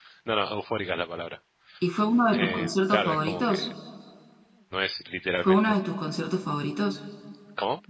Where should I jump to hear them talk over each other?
2.3 s

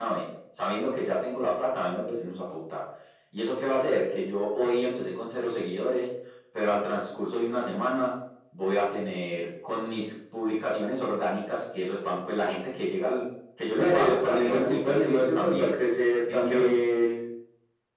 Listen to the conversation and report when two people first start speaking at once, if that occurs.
13.8 s

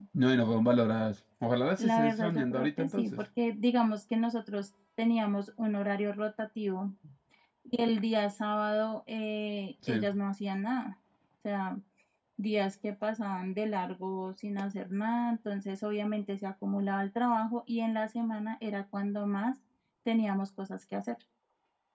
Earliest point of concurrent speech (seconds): 1.8 s

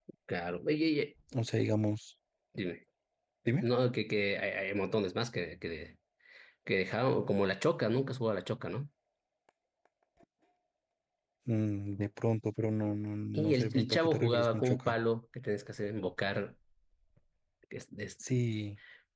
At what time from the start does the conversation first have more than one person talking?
13.3 s

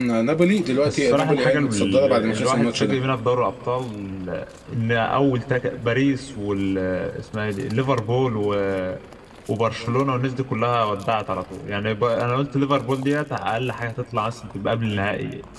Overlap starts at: 0.8 s

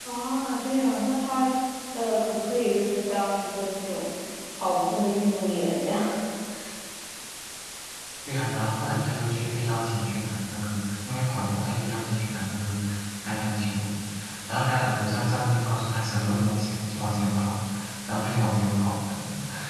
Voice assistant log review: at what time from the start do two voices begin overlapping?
none

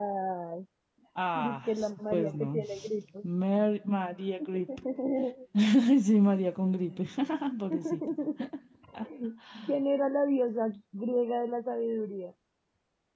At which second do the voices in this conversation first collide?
1.4 s

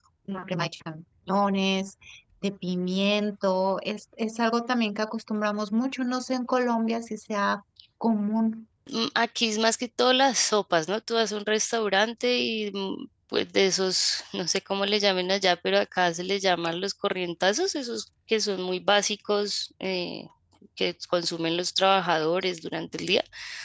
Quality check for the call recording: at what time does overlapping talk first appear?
none

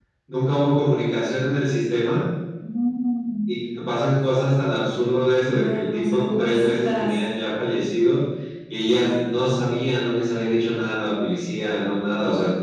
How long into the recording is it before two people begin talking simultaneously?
5.5 s

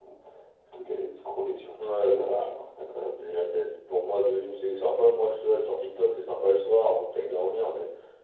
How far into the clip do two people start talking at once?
1.8 s

